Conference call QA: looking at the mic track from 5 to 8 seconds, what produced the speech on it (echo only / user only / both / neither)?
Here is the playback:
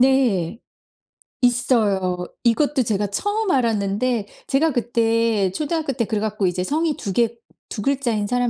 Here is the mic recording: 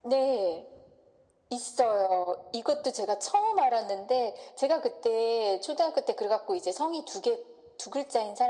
echo only